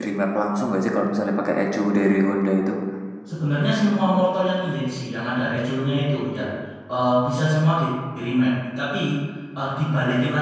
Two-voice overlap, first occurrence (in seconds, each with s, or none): none